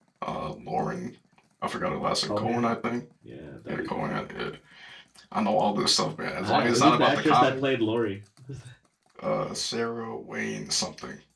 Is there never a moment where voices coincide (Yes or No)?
No